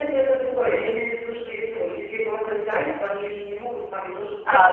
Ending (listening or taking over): taking over